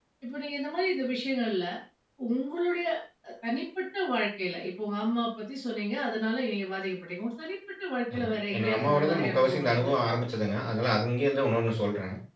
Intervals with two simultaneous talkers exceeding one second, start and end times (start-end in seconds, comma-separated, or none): 8.2-10.1